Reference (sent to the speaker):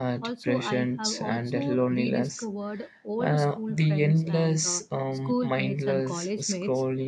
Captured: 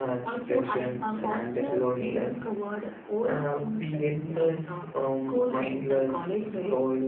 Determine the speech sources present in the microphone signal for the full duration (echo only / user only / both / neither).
echo only